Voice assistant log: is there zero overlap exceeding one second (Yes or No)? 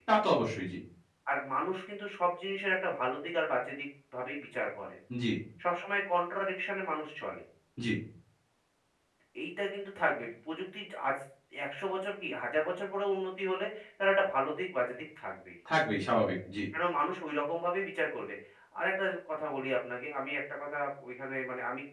Yes